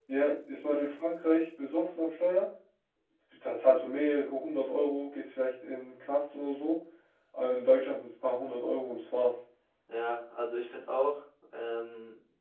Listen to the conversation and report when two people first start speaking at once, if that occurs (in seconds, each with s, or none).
none